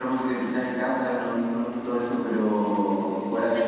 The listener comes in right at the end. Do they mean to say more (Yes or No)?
No